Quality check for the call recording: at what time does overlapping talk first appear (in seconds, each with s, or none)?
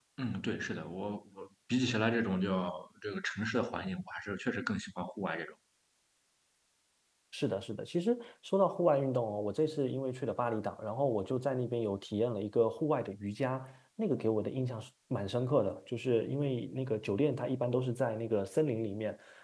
none